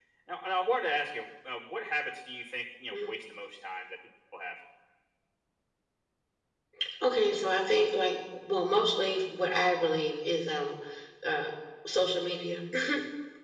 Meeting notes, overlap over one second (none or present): none